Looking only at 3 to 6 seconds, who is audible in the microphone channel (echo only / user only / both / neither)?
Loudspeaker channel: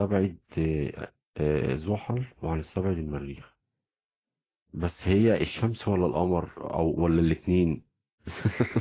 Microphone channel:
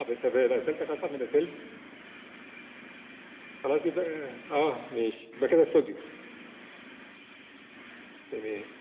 user only